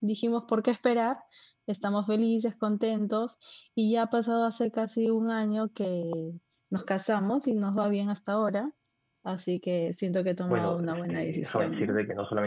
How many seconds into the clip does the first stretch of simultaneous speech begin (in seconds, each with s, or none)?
10.5 s